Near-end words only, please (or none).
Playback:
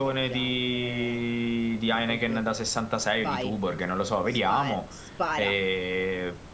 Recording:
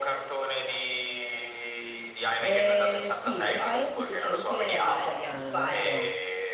Eh, sì, ricordati che c'è Luca è vegetariana, eh, però.